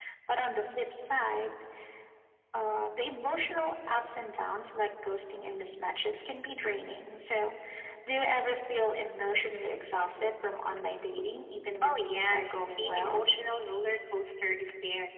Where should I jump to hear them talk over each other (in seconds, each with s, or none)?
11.8 s